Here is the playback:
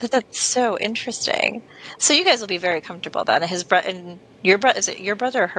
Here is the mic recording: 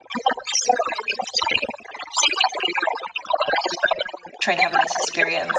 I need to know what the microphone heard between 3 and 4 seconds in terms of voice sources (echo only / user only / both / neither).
echo only